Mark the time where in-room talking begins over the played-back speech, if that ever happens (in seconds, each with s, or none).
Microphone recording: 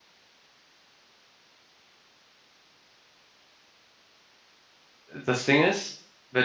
5.2 s